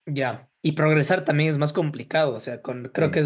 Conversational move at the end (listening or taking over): listening